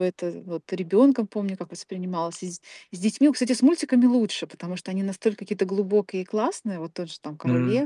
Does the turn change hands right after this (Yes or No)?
No